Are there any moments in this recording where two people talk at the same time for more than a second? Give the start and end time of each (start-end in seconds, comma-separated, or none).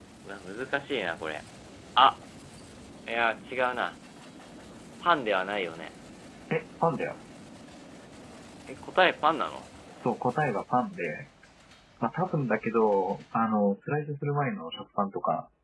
none